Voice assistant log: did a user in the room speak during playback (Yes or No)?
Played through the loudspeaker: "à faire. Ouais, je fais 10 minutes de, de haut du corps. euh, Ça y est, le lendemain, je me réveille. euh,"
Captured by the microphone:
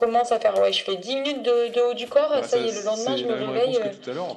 Yes